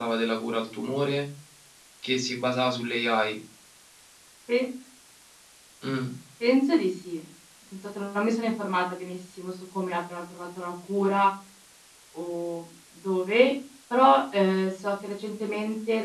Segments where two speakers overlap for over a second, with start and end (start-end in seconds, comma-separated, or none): none